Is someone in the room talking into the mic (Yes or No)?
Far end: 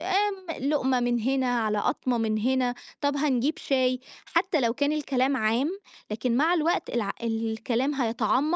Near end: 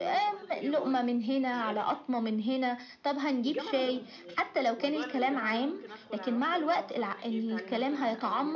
Yes